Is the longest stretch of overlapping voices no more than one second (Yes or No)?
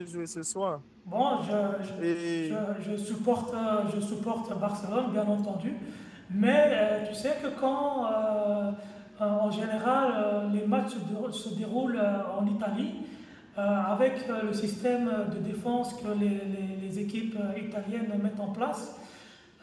Yes